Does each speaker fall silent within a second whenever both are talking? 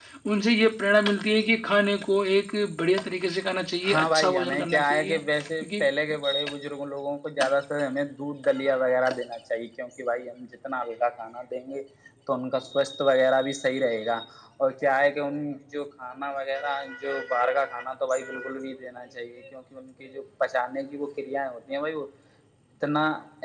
No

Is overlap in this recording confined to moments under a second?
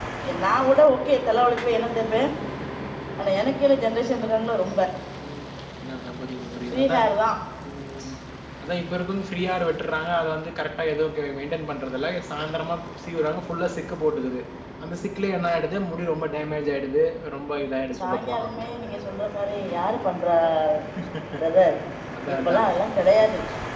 Yes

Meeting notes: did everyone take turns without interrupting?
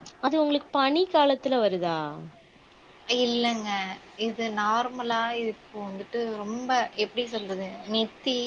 Yes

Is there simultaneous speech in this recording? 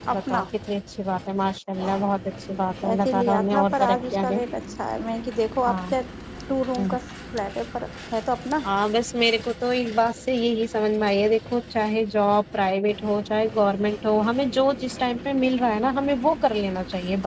Yes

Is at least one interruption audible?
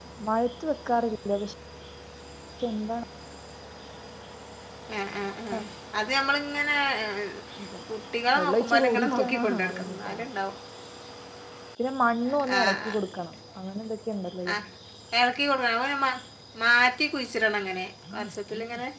Yes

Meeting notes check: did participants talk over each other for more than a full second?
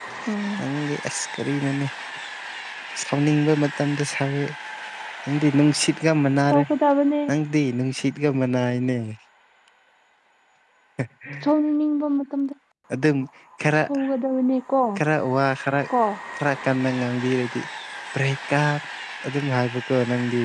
No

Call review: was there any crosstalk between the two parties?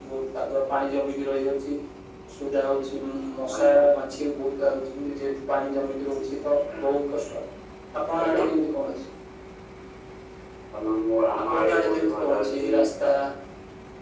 Yes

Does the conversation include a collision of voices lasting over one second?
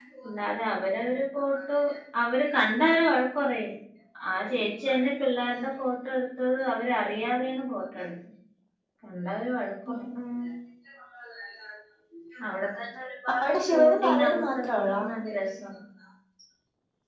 Yes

